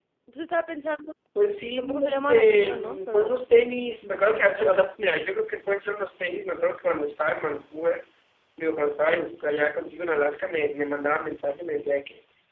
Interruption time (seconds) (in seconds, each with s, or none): 1.7 s